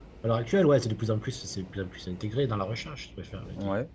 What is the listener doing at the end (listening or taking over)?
listening